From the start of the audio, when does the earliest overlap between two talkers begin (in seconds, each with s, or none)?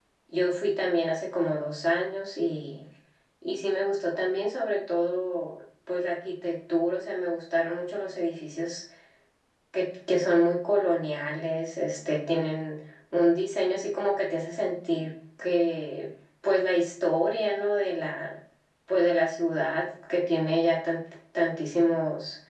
none